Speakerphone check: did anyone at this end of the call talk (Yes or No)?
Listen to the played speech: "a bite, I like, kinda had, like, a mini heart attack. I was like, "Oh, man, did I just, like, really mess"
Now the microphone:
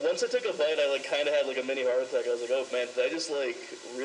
No